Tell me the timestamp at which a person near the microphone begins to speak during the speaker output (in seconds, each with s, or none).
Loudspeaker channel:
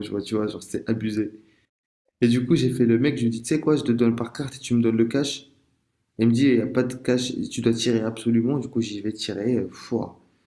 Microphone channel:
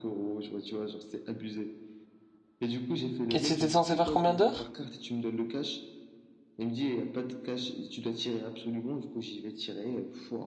3.3 s